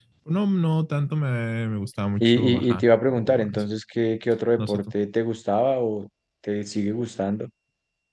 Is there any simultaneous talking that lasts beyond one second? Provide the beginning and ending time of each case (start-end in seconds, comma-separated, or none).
2.2-3.6